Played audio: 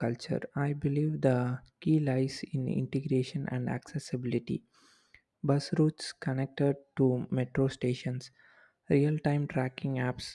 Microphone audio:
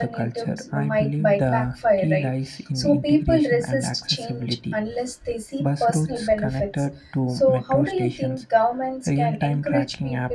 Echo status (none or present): present